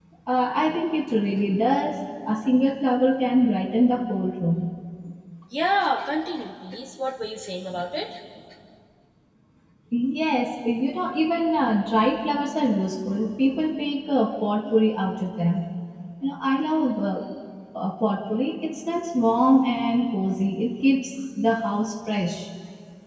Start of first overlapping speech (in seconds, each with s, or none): none